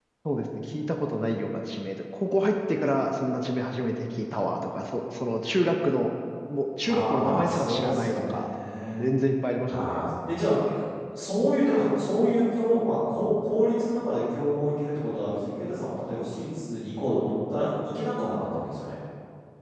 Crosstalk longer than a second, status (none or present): present